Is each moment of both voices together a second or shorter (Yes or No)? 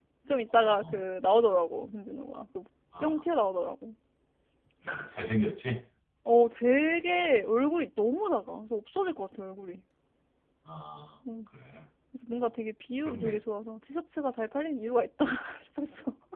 Yes